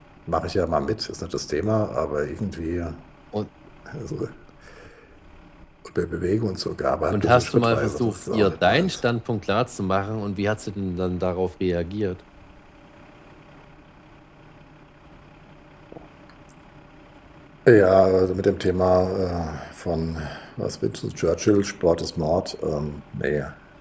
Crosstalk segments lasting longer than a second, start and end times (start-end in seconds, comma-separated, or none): 7.1-9.0